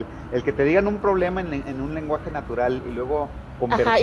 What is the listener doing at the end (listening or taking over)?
taking over